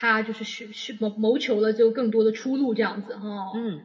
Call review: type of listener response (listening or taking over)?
taking over